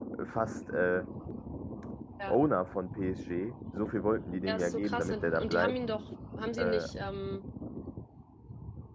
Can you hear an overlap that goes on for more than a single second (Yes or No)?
Yes